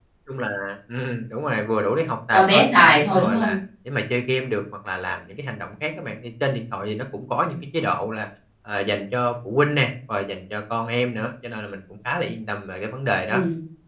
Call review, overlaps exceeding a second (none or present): present